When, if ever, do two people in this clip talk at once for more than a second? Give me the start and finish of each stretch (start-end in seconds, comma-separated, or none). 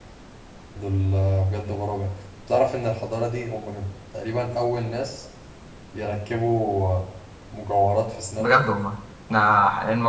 none